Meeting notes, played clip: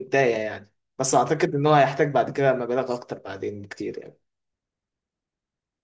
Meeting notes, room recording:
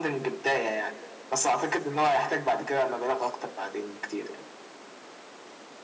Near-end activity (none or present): none